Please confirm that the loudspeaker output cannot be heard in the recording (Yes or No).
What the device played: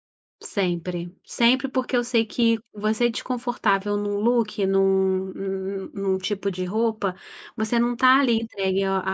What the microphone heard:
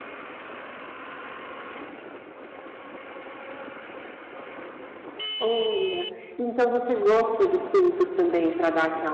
Yes